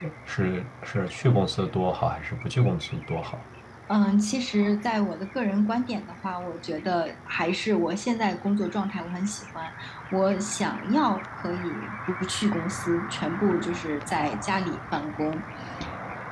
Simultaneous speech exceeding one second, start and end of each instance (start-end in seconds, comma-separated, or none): none